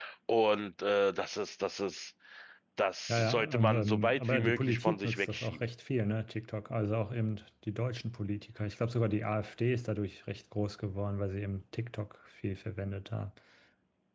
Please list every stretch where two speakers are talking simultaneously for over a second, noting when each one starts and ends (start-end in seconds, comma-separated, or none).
3.1-5.7